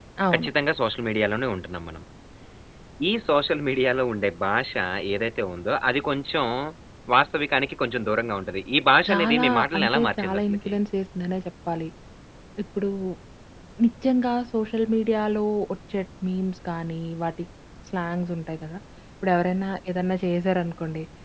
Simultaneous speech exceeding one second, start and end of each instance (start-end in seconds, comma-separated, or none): 9.1-10.7